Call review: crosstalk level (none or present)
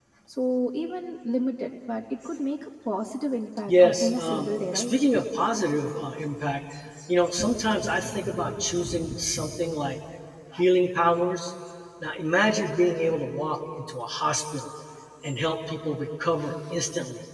present